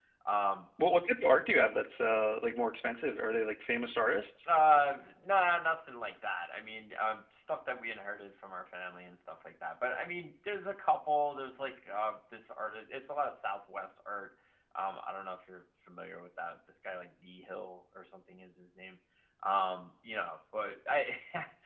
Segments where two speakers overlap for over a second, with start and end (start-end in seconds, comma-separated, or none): none